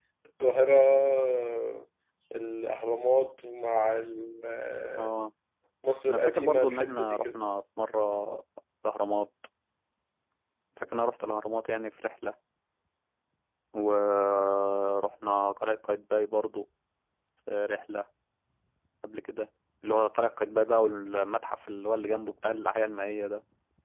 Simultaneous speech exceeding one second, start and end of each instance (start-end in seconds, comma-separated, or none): 6.1-7.4